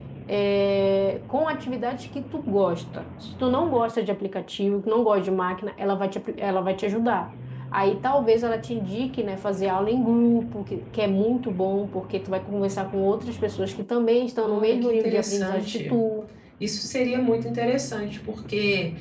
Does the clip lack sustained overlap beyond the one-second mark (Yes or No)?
No